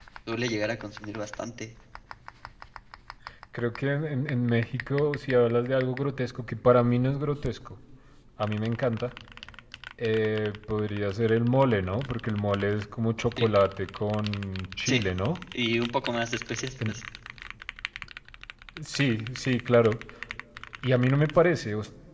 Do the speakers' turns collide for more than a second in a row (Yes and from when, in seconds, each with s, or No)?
No